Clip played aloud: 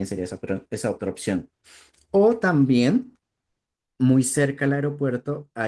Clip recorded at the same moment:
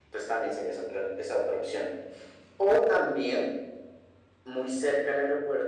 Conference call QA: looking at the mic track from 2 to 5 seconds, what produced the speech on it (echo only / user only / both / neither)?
echo only